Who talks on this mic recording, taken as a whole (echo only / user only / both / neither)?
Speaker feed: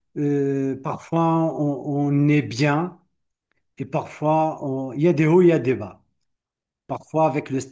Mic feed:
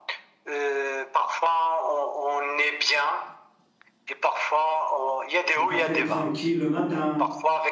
both